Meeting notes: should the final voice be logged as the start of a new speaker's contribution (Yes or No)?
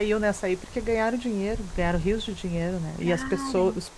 No